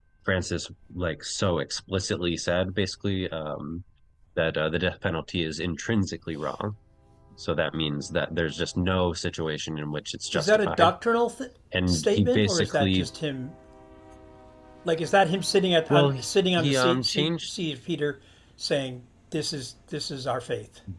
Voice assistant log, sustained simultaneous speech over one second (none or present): present